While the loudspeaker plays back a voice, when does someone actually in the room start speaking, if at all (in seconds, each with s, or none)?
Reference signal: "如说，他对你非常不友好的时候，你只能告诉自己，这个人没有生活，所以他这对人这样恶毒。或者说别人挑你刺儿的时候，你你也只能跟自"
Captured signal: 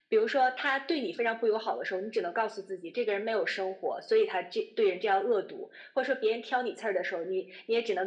none